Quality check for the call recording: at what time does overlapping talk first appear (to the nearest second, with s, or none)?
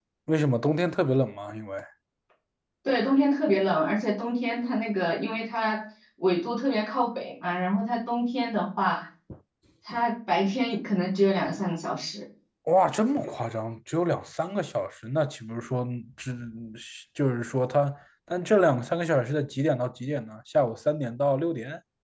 none